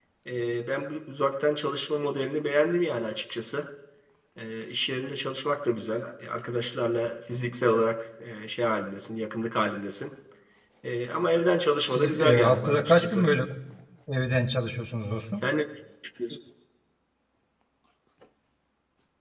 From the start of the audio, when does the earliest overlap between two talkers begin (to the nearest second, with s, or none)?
12 s